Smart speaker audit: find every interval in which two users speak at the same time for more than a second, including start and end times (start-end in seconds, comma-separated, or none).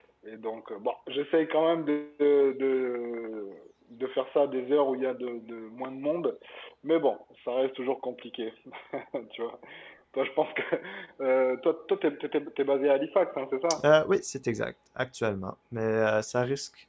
none